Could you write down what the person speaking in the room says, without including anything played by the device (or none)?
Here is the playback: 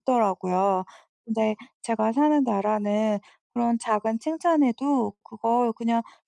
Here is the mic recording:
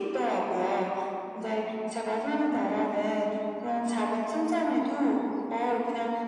none